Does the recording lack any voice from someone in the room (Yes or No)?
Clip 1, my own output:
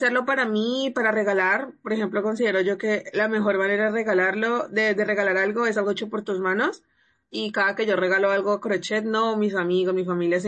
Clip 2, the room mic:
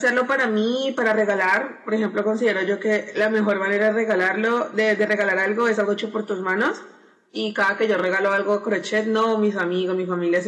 Yes